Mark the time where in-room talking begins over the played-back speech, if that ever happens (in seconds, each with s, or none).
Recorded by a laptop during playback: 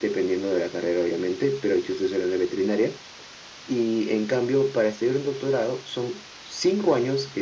none